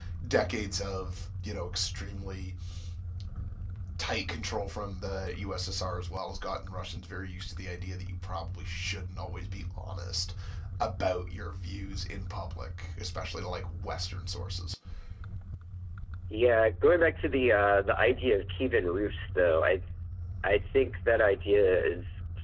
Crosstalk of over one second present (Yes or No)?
No